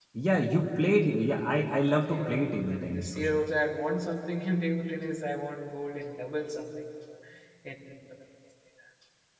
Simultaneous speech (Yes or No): Yes